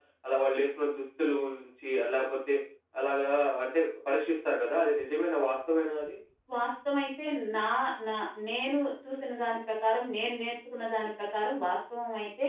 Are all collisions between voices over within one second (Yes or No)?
Yes